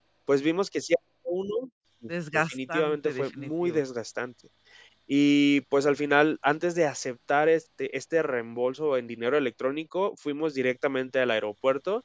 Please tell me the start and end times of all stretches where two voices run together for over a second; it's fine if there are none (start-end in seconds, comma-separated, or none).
2.5-3.9